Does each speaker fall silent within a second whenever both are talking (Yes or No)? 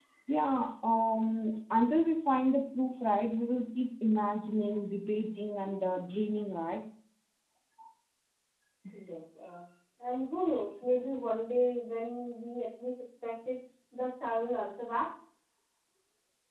Yes